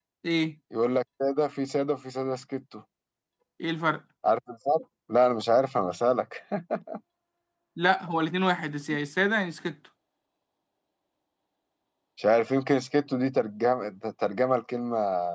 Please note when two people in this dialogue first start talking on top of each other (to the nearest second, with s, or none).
none